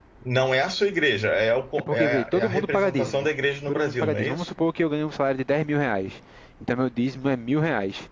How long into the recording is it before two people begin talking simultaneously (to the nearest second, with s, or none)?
2 s